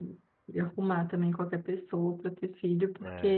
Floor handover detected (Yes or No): Yes